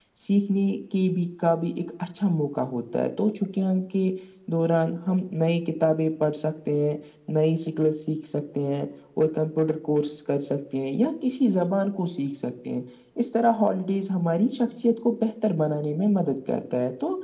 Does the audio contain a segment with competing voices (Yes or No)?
No